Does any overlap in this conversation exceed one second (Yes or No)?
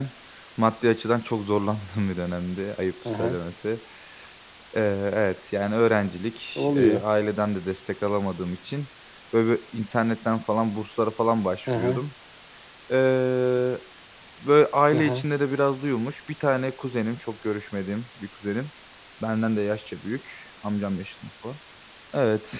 No